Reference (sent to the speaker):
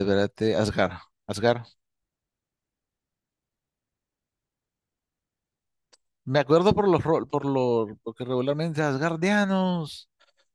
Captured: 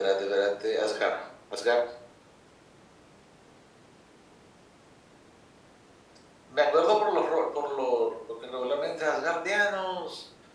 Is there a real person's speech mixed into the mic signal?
No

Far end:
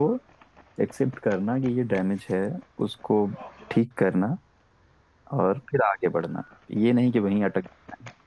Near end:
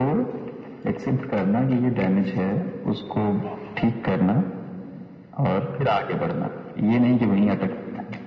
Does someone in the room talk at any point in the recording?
No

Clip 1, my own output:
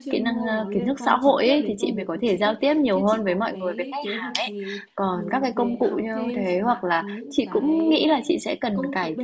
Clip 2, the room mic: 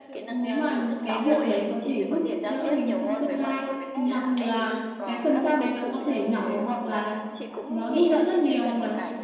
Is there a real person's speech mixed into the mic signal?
Yes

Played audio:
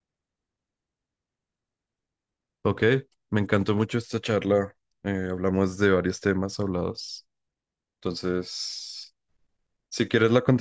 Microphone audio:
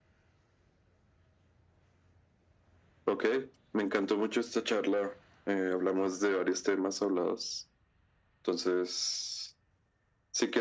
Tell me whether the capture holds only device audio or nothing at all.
Yes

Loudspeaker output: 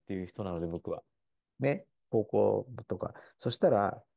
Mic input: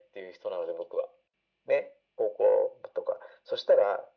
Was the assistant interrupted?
No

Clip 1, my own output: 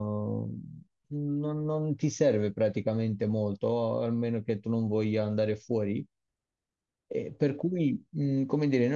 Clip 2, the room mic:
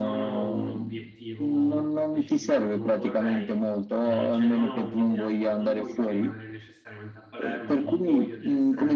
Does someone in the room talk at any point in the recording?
Yes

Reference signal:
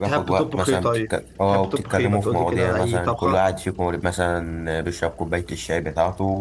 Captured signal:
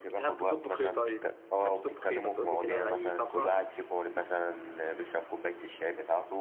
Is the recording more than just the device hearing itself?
No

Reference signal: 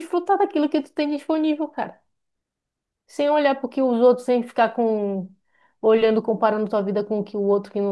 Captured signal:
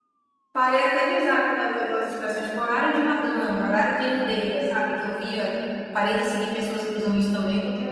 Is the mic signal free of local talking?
No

